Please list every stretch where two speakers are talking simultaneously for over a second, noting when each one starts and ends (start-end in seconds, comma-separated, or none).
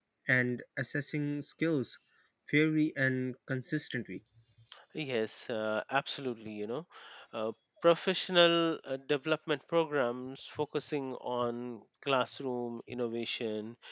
none